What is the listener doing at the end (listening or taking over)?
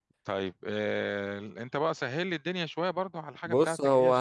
taking over